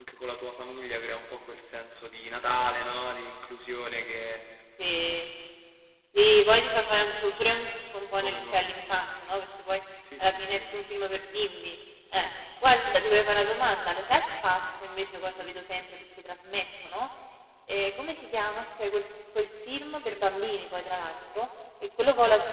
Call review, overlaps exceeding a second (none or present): none